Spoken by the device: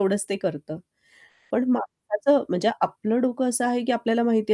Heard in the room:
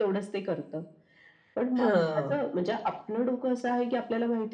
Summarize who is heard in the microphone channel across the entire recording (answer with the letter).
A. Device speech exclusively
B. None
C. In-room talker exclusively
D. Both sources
D